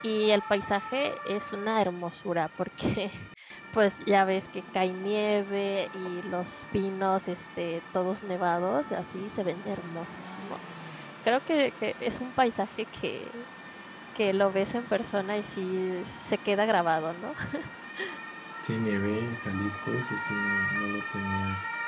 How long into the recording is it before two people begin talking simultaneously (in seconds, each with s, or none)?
none